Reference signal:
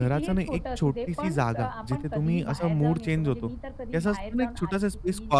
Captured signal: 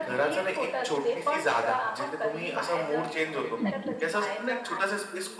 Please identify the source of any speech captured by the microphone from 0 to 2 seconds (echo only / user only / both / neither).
echo only